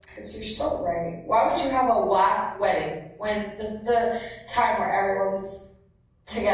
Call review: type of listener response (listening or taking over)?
taking over